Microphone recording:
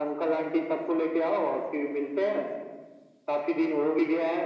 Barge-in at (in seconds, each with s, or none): none